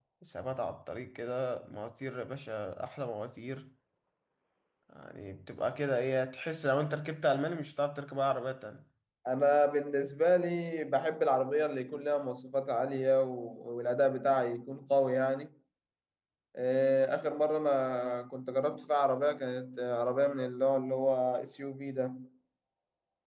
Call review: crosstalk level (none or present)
none